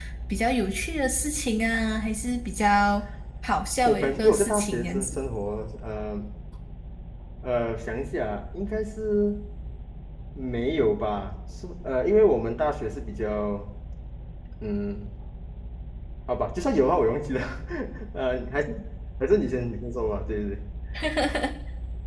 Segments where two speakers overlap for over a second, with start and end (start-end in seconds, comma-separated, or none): 3.8-5.2